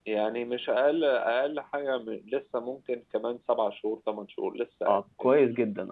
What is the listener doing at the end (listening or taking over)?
taking over